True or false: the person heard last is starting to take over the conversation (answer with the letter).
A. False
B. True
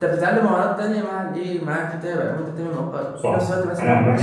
B